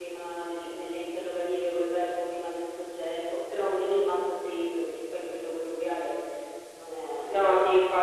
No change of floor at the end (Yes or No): No